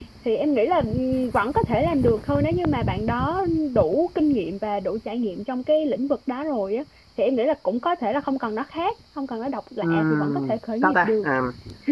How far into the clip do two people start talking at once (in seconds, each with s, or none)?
9.8 s